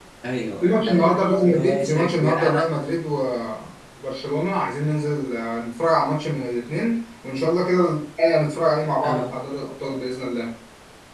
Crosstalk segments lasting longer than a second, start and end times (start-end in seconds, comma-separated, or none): 0.6-2.6